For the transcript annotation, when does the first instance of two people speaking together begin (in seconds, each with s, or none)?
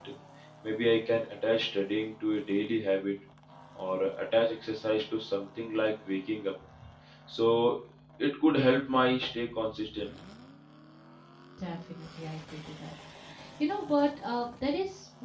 none